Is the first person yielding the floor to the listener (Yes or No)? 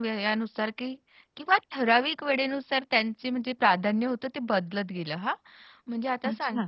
No